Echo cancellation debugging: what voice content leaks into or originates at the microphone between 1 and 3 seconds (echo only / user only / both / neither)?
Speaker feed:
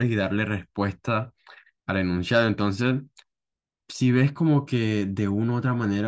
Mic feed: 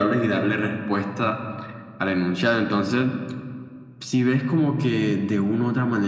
echo only